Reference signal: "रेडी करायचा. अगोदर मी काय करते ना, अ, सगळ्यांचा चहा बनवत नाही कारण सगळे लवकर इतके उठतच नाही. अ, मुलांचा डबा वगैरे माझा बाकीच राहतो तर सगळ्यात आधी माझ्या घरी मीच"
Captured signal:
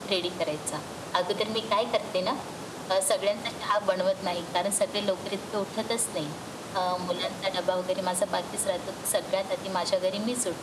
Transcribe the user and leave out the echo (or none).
none